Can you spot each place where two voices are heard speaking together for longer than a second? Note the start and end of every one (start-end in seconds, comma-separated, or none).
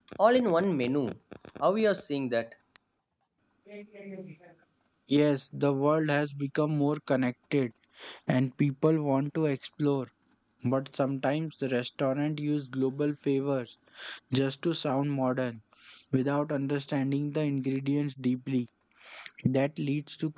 none